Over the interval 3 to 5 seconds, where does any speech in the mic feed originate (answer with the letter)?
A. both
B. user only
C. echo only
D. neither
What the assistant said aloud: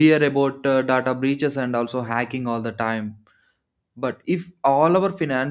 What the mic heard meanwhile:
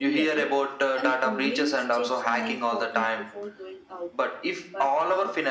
A